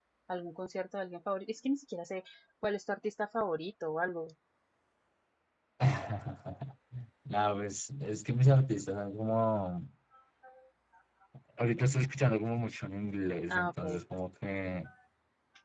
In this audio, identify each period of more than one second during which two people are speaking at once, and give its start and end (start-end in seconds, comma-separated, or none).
none